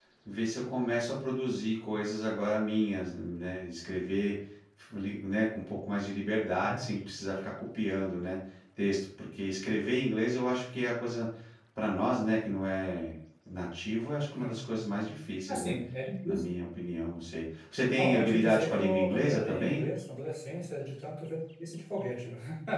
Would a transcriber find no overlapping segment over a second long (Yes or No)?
No